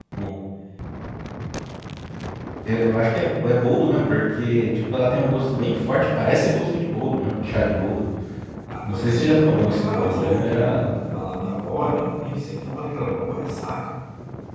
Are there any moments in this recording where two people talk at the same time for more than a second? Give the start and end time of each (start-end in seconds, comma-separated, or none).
8.9-10.8